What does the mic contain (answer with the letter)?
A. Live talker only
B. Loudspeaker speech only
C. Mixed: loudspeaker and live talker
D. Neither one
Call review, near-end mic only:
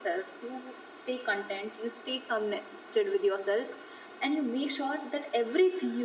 B